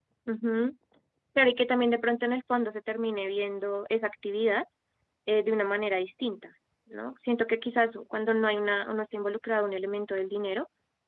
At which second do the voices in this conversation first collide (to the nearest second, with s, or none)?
none